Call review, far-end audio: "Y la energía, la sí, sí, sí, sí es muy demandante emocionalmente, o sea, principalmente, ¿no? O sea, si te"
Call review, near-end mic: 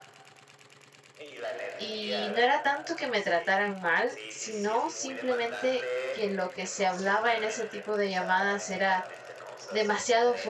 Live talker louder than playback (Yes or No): Yes